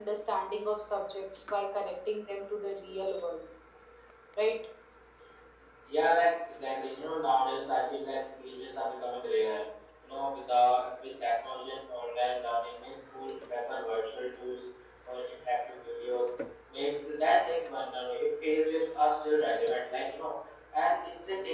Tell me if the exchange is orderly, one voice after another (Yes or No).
Yes